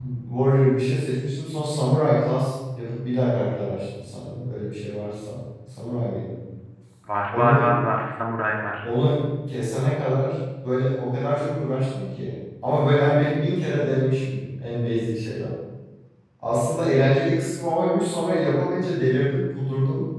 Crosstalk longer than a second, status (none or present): none